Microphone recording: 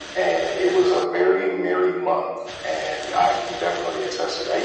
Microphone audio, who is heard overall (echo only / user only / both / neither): echo only